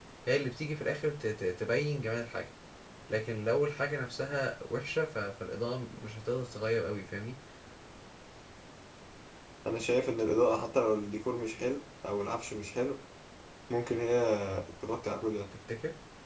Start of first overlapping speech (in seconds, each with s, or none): none